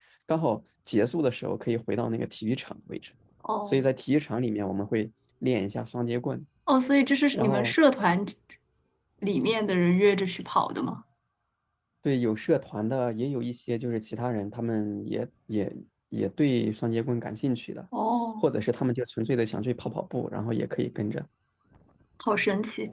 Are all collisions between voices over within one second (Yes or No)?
Yes